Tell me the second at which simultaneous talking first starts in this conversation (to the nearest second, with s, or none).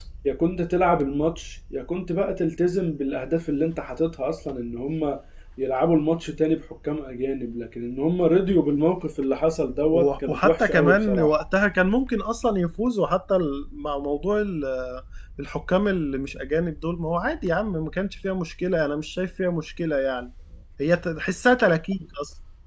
10 s